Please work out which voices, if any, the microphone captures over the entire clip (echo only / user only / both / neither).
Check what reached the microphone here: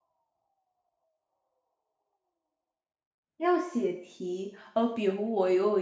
user only